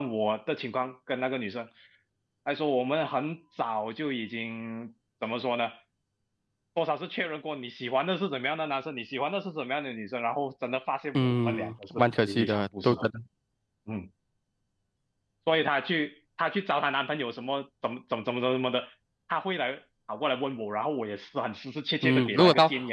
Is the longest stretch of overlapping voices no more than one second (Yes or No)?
No